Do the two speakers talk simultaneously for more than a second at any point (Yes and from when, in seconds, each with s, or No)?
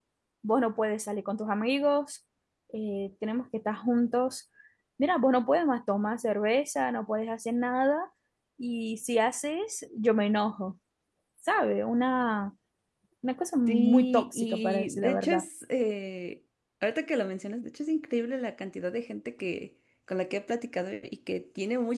Yes, from 13.7 s